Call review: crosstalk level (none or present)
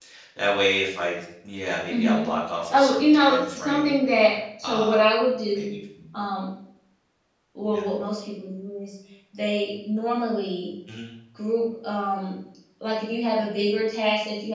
present